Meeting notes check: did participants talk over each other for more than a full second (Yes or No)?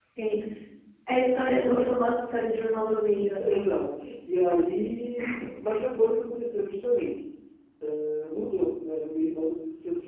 No